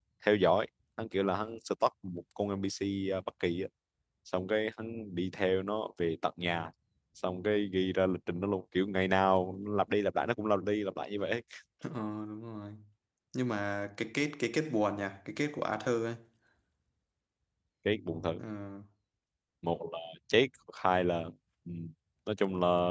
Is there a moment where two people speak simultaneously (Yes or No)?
No